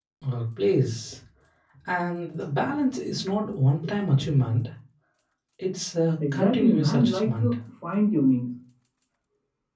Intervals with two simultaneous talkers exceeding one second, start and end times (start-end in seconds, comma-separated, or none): 6.3-7.5